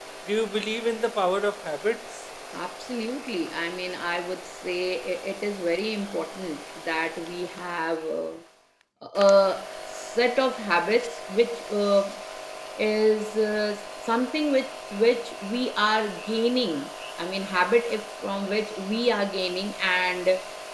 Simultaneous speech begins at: none

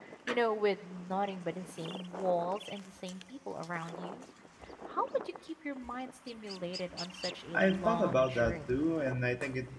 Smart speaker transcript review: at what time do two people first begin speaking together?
7.5 s

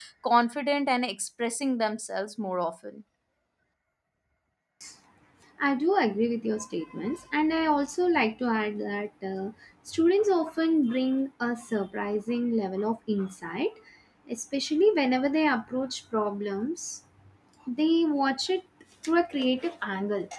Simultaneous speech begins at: none

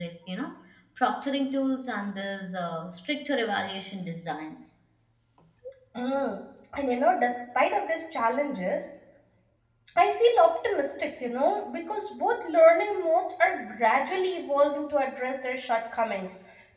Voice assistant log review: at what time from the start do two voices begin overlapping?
none

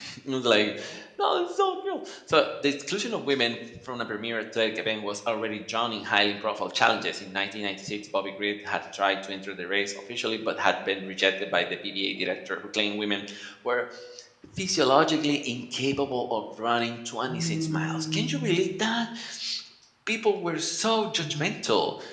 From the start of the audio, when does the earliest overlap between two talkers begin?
17.3 s

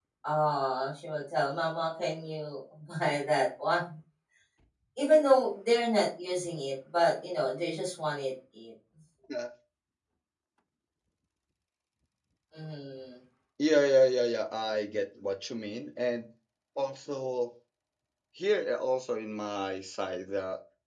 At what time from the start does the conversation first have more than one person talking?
none

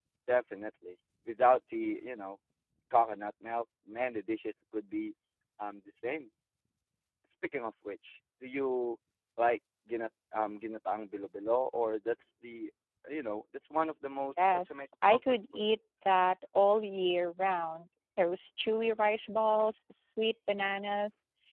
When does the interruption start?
14.4 s

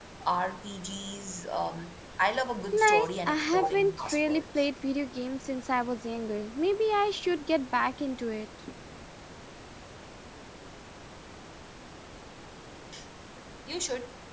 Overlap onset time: 2.7 s

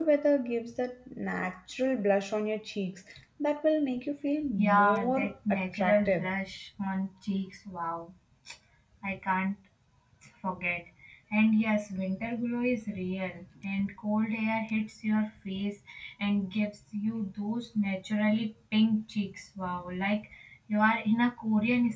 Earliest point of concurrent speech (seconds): 4.6 s

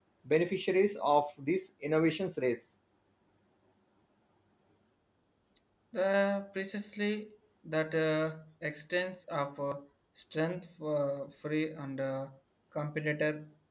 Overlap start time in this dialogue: none

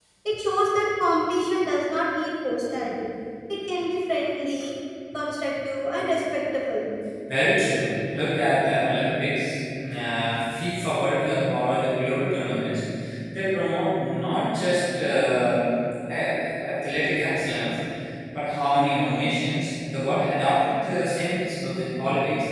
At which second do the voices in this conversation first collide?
none

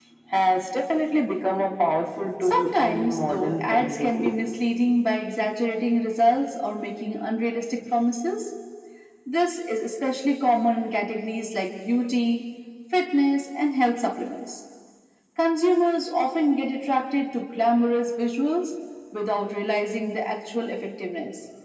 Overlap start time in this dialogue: 2.4 s

